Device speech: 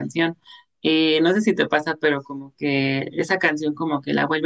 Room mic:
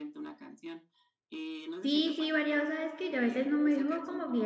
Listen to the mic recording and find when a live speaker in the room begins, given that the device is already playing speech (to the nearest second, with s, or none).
2 s